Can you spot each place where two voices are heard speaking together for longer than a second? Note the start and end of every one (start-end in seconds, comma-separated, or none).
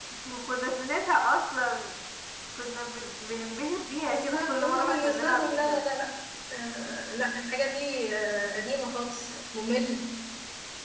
4.0-5.8